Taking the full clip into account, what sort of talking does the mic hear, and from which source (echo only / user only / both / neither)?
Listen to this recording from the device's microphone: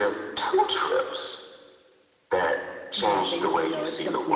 both